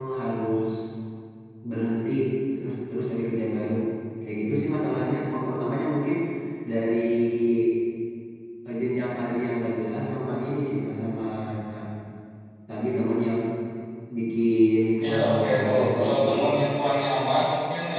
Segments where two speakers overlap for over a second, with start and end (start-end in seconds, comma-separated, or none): 15.1-16.4